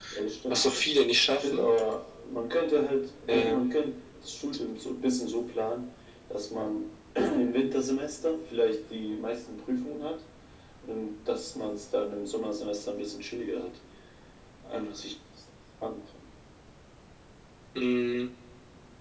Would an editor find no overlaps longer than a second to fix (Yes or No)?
Yes